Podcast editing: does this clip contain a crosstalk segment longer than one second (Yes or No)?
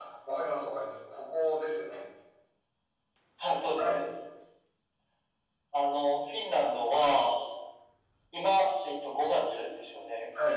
No